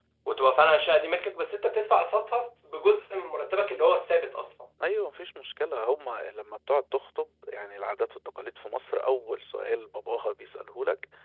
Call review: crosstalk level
none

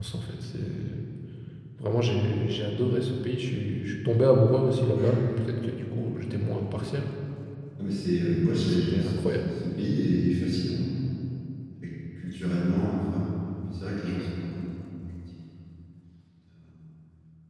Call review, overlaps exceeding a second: present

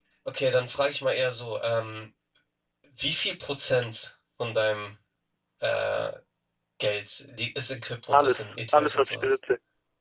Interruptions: present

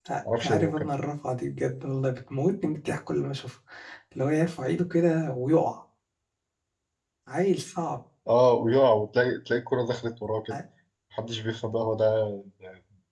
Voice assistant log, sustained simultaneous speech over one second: none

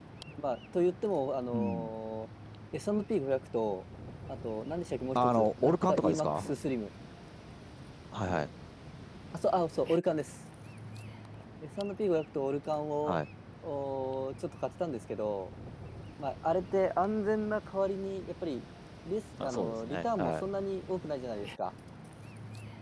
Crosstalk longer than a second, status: present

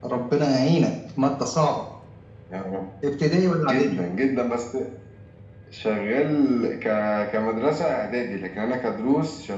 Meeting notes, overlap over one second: none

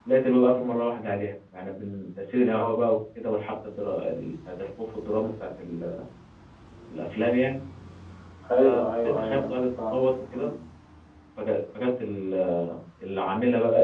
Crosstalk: present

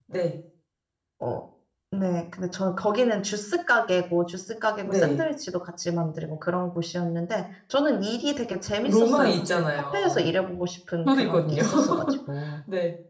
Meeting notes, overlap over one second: present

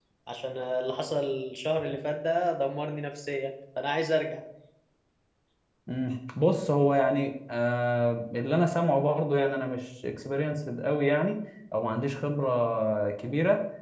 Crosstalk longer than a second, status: none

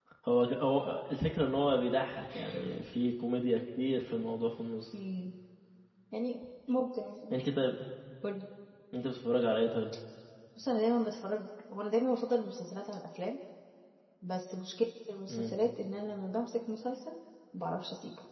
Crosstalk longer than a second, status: none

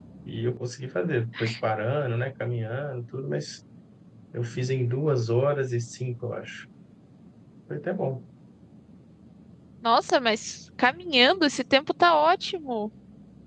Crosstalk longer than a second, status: none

